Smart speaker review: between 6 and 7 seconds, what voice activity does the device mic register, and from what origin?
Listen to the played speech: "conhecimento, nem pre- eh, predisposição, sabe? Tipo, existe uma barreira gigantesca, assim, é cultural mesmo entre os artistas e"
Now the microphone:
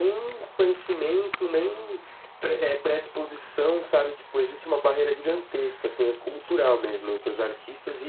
echo only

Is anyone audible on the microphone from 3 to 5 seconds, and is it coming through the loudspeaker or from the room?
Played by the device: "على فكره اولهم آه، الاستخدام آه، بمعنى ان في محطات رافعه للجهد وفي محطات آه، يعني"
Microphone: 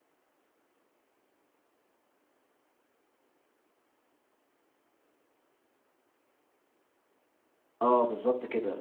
neither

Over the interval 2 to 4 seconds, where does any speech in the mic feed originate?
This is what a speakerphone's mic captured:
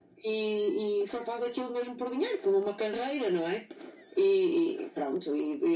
echo only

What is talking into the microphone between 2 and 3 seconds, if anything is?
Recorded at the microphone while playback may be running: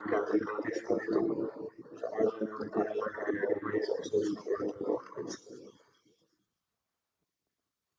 echo only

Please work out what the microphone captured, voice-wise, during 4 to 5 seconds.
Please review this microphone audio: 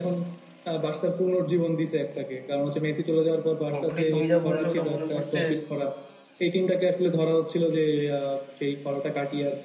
both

